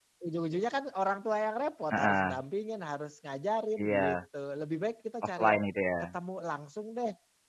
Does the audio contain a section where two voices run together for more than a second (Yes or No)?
No